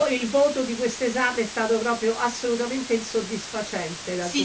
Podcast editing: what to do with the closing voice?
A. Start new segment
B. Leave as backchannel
A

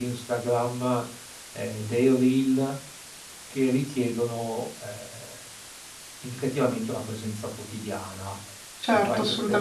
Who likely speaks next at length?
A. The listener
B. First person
A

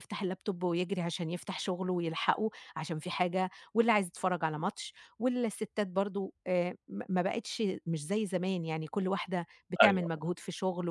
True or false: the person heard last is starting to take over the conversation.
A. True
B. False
B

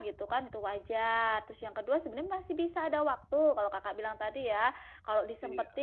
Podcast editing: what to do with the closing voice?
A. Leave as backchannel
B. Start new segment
A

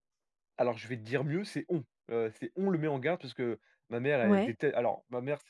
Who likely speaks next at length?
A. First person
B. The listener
A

